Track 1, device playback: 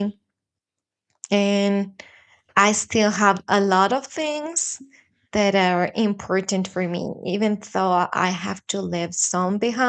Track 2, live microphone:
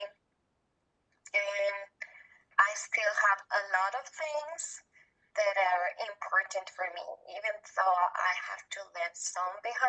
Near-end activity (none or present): none